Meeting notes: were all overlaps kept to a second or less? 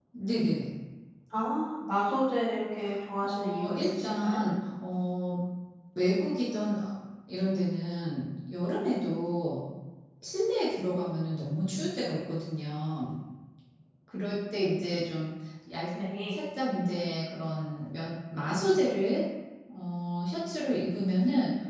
No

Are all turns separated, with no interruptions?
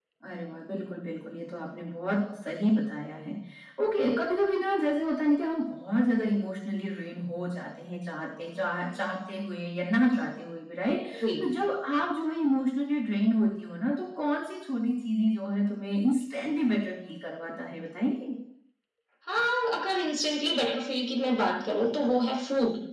Yes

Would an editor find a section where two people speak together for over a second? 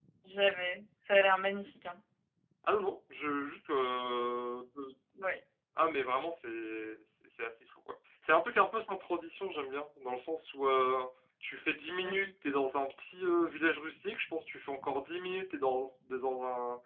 No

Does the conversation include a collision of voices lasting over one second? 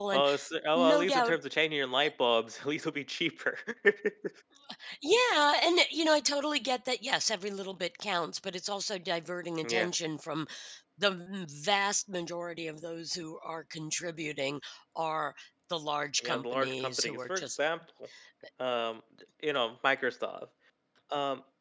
Yes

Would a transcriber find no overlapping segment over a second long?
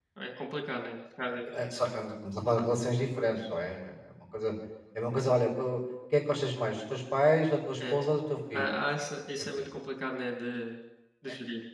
Yes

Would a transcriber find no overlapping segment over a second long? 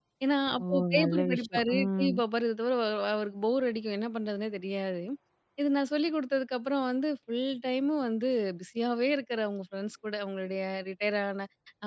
No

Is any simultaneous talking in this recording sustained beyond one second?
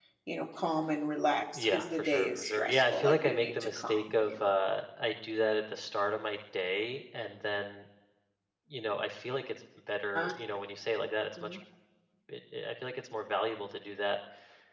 Yes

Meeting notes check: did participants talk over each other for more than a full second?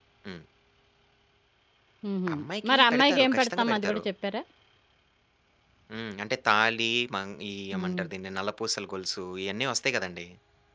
Yes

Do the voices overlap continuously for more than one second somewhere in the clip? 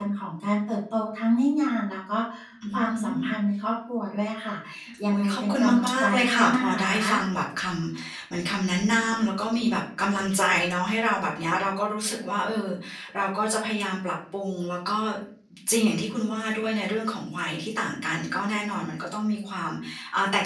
Yes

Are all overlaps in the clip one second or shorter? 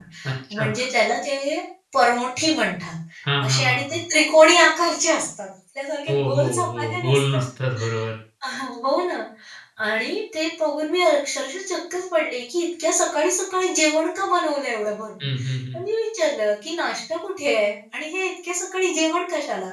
No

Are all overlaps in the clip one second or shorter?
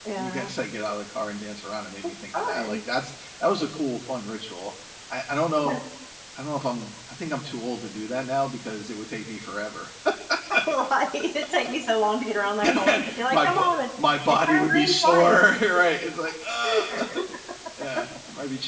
No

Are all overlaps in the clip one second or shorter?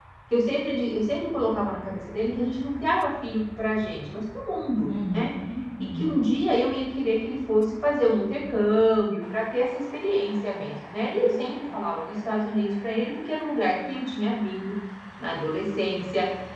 Yes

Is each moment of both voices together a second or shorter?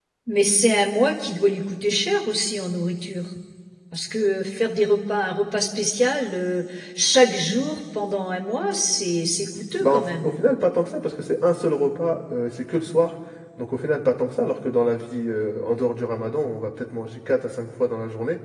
Yes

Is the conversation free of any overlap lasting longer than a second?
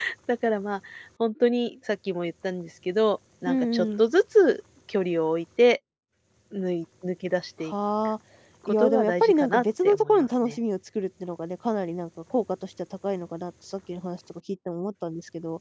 No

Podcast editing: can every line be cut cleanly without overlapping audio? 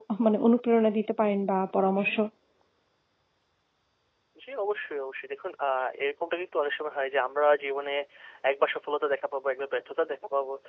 Yes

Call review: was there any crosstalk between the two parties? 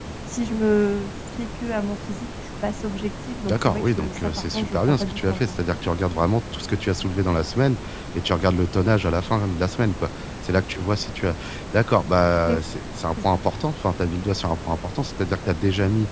Yes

